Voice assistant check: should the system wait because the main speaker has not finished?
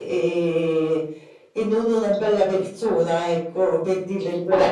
No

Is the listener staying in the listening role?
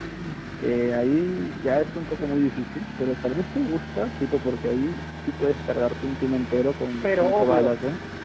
No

